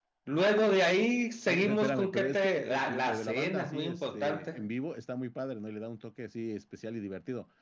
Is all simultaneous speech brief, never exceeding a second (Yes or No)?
No